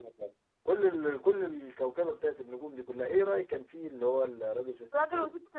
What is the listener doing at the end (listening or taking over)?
taking over